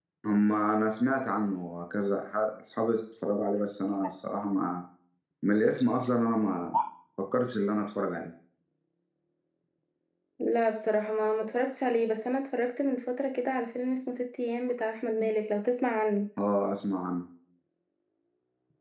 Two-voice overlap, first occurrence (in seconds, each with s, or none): none